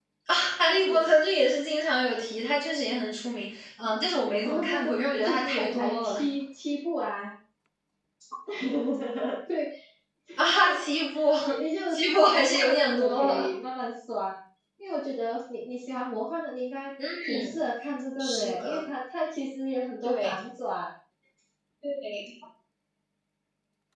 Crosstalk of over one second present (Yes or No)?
Yes